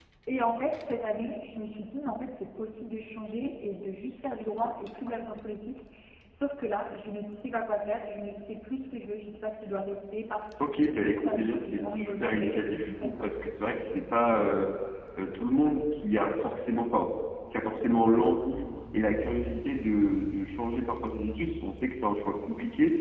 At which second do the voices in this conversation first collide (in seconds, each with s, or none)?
10.6 s